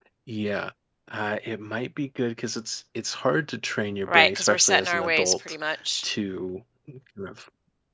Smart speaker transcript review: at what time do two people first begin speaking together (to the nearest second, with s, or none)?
4 s